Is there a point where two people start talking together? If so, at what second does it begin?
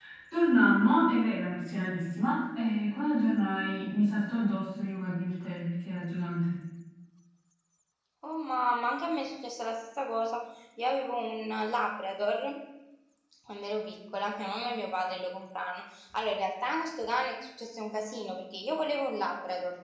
none

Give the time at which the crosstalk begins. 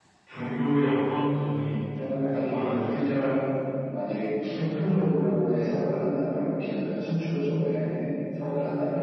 2 s

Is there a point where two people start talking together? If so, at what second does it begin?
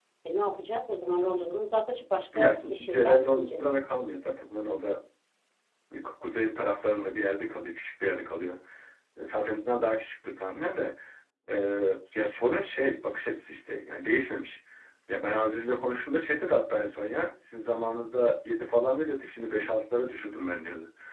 2 s

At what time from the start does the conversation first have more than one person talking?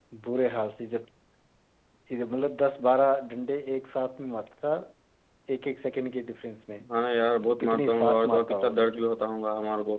7 s

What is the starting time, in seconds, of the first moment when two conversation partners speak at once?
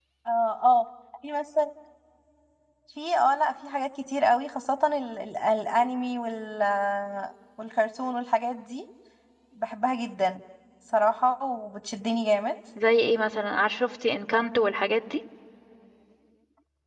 none

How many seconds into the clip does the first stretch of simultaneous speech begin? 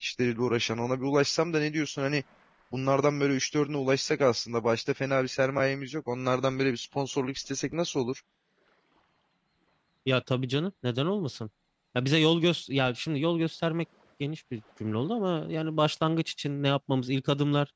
none

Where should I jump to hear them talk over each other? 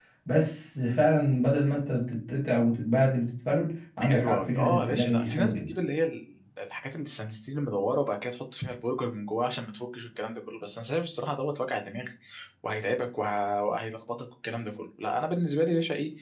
4 s

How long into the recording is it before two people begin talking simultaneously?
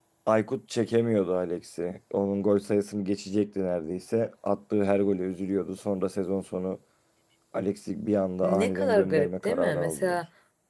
8 s

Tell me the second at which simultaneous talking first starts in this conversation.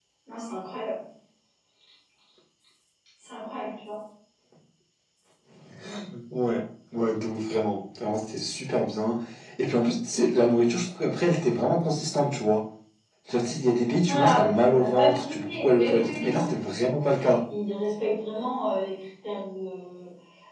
14 s

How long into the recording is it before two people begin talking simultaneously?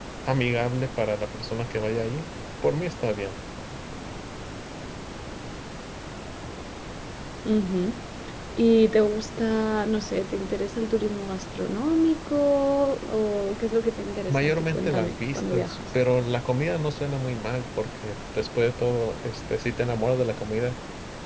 14 s

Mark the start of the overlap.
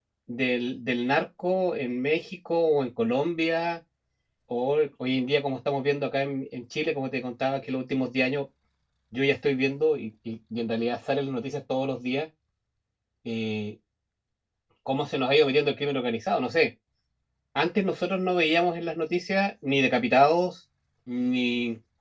none

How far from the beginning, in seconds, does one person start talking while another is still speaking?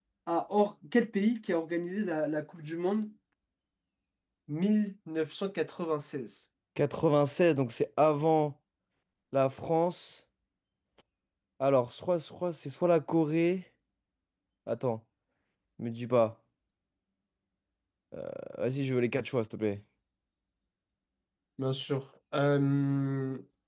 none

